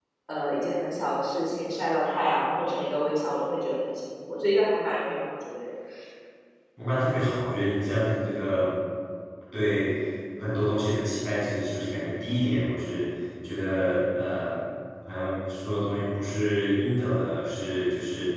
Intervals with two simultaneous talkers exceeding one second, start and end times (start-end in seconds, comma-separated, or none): none